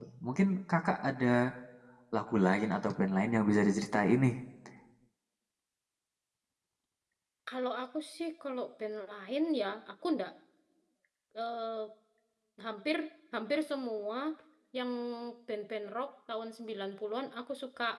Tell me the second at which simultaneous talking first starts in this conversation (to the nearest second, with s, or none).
none